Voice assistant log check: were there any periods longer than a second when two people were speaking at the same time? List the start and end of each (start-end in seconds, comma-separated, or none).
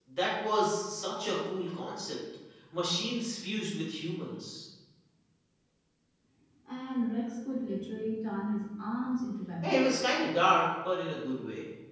none